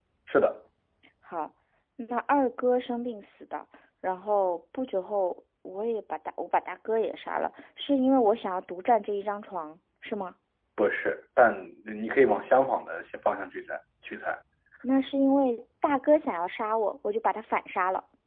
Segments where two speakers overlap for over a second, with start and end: none

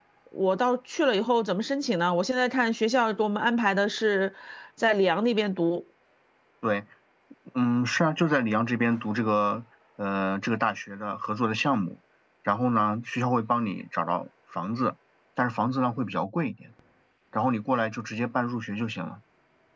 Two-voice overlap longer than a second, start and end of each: none

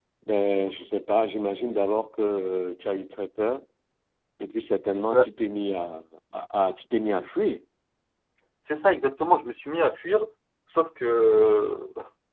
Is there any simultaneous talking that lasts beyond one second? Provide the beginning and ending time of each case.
none

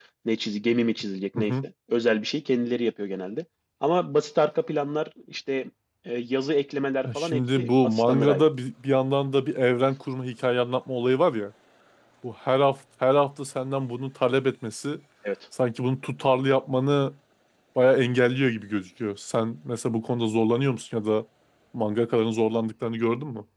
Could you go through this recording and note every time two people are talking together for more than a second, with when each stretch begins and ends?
7.1-8.4

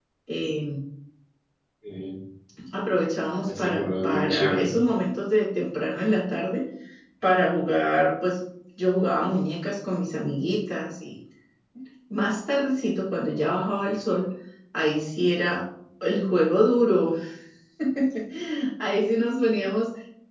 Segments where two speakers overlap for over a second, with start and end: 3.5-4.7

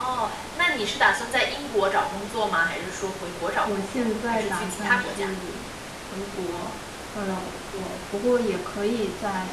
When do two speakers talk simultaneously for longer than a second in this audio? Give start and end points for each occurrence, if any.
3.6-5.3

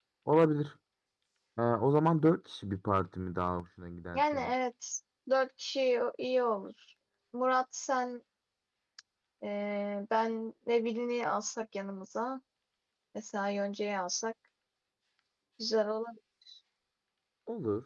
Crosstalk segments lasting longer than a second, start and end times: none

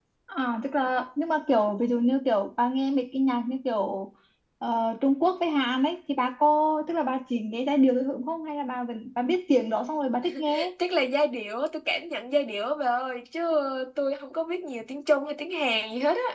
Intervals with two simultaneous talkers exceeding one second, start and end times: none

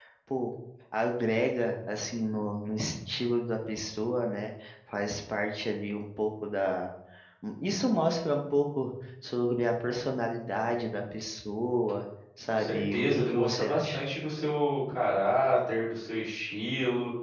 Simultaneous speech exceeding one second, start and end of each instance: 12.5-14.0

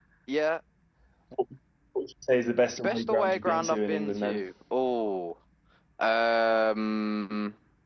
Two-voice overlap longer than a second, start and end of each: 2.8-4.4

